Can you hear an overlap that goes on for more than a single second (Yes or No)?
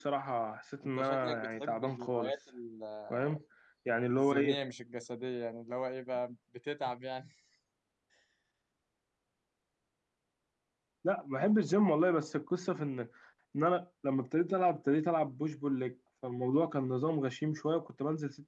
Yes